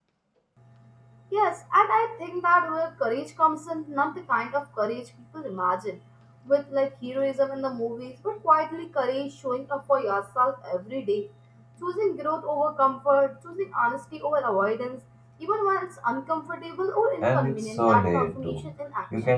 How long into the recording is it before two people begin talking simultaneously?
17.2 s

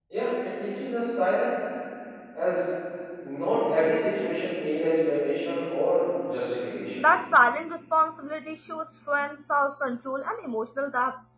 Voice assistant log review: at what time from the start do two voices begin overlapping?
none

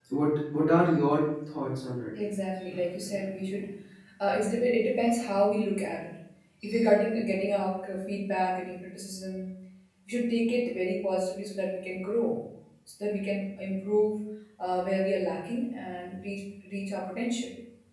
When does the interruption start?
none

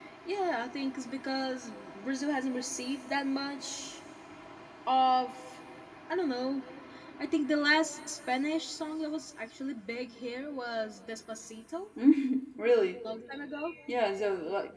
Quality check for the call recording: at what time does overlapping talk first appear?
none

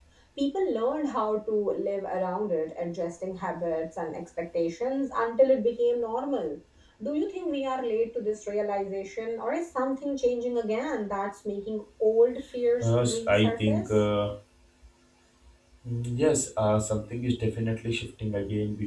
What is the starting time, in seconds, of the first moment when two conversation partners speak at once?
12.8 s

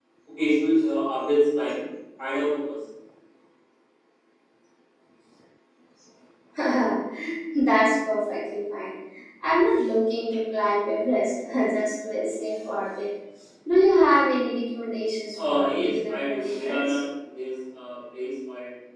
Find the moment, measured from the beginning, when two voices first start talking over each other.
15.3 s

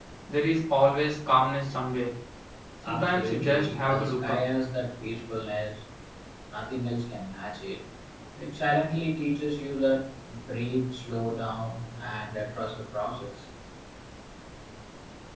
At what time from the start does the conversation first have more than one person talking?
2.9 s

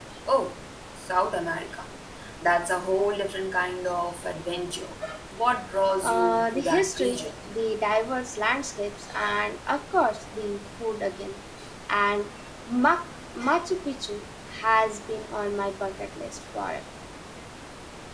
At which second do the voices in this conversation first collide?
6.0 s

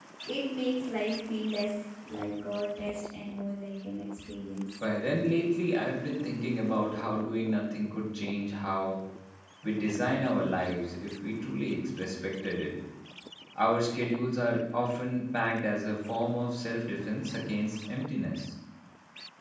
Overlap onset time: none

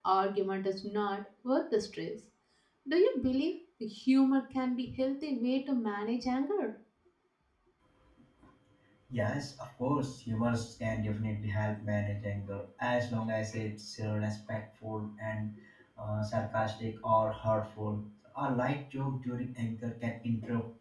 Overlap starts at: none

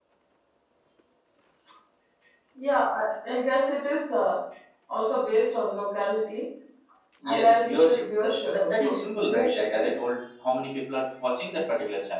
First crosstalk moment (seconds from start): 7.2 s

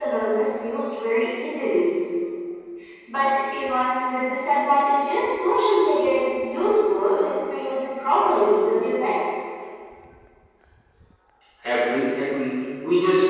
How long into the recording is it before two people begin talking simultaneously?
none

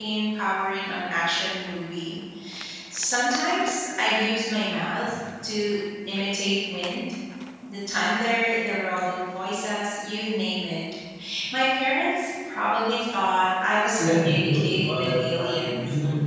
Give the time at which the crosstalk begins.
13.8 s

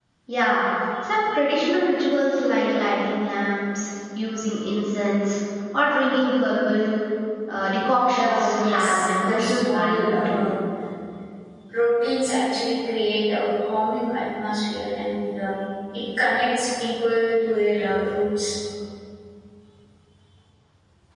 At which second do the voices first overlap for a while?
8.1 s

